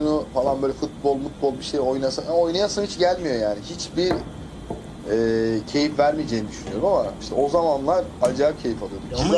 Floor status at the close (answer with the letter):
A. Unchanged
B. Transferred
B